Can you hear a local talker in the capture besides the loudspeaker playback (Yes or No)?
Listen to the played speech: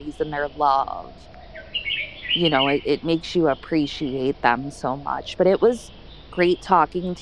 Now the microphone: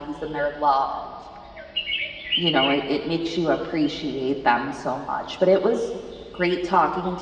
No